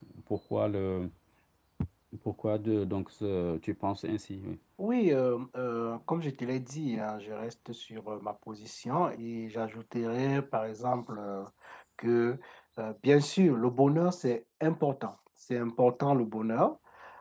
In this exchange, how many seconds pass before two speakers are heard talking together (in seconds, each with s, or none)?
none